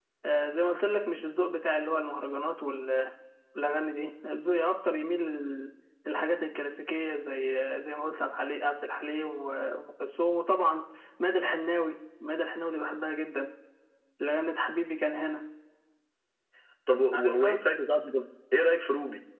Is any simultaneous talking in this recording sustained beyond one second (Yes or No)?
No